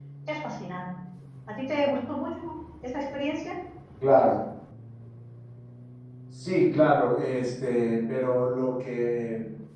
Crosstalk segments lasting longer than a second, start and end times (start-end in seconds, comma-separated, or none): none